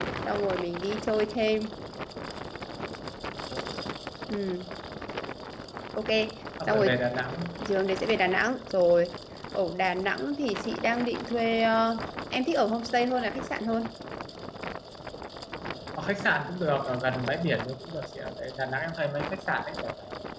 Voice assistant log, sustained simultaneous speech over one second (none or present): none